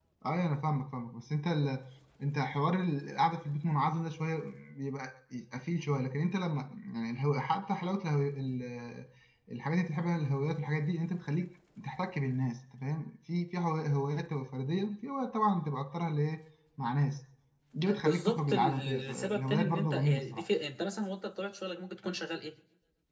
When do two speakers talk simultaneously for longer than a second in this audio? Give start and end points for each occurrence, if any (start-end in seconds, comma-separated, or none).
17.9-20.4